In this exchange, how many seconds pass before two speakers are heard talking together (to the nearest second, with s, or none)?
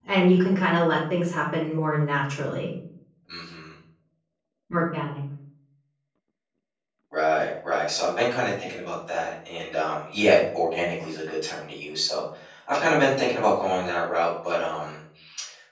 none